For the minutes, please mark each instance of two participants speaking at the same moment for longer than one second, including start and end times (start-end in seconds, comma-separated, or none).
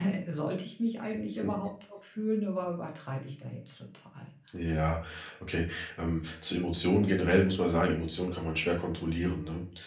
none